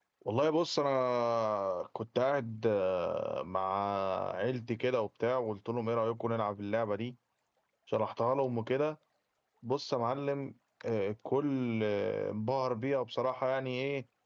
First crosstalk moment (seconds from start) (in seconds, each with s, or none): none